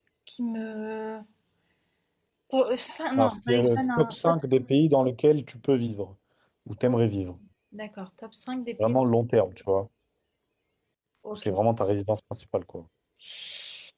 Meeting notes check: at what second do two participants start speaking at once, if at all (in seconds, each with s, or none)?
3.1 s